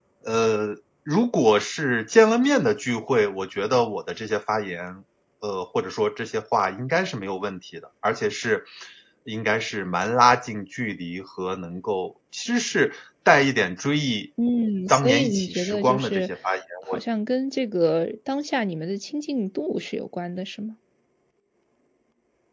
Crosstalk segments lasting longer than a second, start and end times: 14.9-16.3

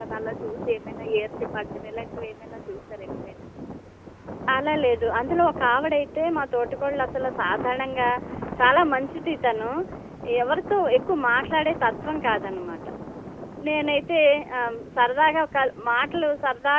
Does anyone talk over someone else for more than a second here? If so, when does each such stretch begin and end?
none

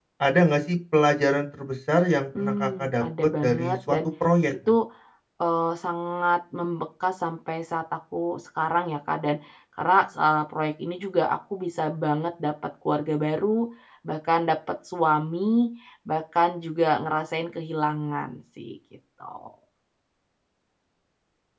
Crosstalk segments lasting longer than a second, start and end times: 2.4-4.0

